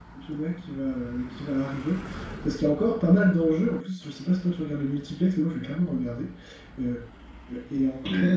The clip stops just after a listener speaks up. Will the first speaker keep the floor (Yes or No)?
Yes